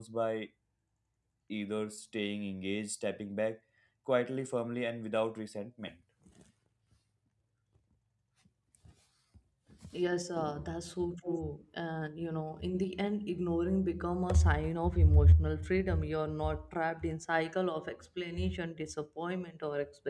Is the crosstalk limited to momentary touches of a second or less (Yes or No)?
Yes